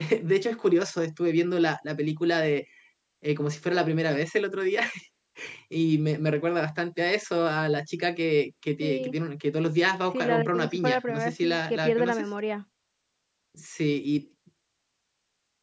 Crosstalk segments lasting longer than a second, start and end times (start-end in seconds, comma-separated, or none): 10.1-12.2